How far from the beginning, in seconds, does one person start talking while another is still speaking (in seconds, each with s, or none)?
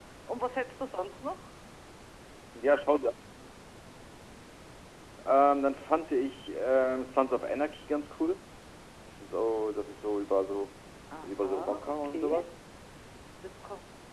11.2 s